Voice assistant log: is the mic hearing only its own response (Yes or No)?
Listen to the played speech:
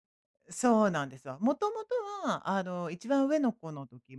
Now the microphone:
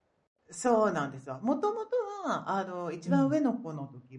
No